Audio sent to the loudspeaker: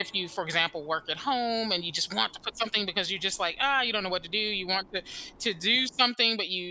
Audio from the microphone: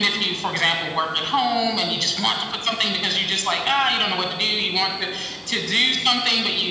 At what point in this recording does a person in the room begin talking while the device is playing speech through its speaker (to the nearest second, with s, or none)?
none